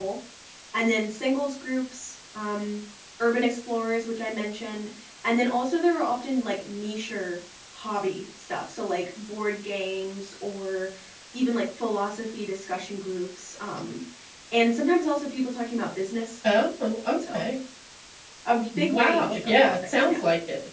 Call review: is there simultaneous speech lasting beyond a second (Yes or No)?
Yes